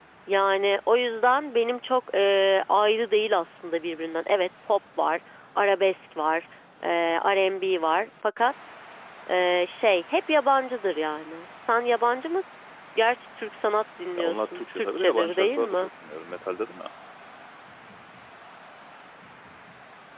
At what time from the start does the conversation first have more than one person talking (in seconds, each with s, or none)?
14.2 s